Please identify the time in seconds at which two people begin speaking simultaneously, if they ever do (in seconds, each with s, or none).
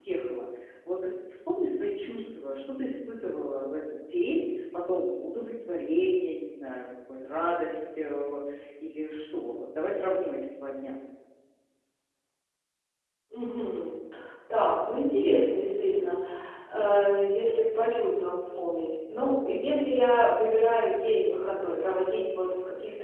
none